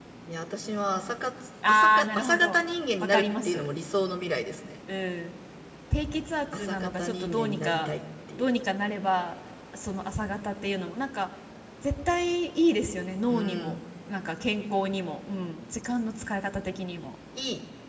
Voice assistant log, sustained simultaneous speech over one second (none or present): present